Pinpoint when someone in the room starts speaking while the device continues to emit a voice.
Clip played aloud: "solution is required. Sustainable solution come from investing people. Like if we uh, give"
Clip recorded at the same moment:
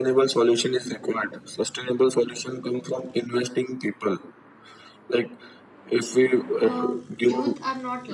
6.6 s

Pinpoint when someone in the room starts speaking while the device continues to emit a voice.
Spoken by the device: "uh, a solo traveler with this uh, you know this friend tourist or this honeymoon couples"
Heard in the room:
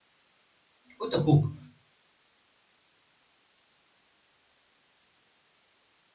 1.0 s

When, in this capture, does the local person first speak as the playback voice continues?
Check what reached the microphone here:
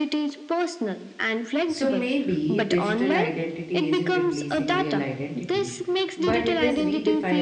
1.6 s

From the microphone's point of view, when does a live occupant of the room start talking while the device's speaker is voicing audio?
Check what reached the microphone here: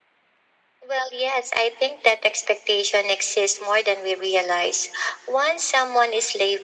none

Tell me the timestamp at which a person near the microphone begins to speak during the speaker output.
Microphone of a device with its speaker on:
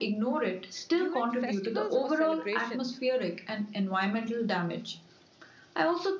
0.9 s

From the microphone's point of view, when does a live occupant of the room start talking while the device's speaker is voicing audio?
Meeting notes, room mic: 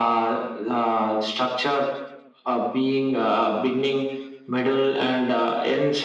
none

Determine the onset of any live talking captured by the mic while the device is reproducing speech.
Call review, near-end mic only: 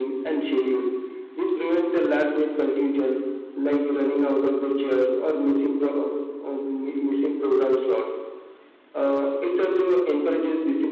none

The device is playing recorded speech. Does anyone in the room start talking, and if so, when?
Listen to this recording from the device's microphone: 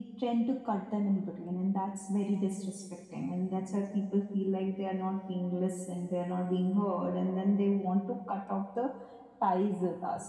none

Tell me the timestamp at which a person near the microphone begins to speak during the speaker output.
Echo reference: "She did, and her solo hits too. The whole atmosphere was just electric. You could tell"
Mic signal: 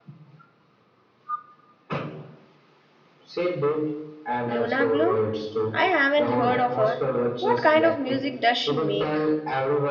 4.5 s

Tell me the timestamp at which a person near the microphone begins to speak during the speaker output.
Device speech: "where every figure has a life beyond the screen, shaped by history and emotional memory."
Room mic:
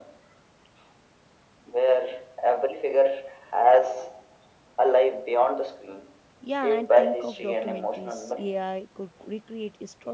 6.4 s

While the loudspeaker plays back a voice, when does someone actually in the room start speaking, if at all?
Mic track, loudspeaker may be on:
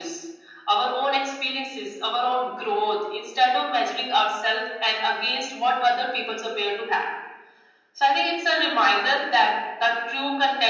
none

